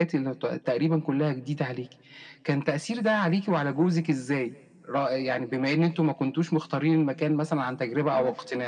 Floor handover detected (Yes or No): Yes